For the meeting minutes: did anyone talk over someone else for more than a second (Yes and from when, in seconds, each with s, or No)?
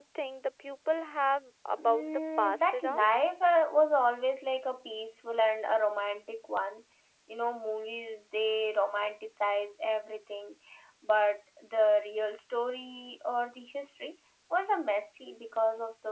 Yes, from 1.8 s